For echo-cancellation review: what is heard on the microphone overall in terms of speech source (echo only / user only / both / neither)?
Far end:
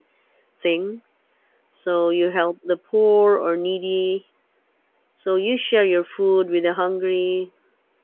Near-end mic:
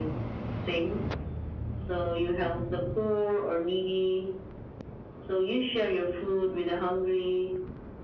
echo only